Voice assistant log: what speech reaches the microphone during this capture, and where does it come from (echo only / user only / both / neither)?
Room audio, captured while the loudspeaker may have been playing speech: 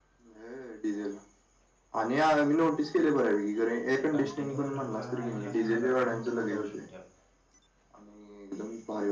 both